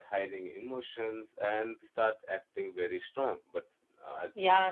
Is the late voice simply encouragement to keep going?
No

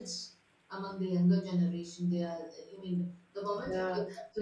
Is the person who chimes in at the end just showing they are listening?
No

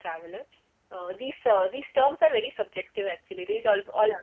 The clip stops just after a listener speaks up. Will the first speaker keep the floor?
Yes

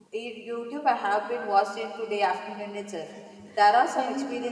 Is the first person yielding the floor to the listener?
No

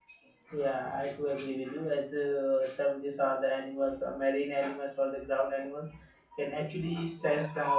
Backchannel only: Yes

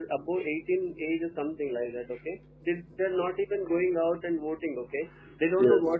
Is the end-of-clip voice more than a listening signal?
No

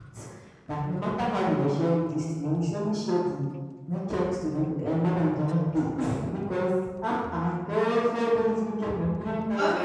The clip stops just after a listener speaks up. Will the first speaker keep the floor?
No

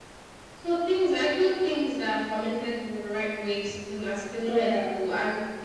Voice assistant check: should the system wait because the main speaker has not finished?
Yes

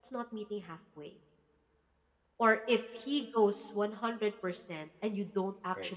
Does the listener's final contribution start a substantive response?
No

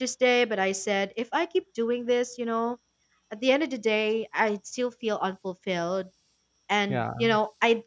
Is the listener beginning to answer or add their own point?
No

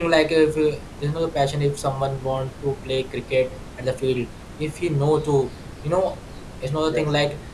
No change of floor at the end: Yes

